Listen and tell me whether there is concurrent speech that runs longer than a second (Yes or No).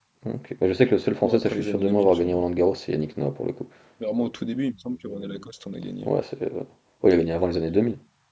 Yes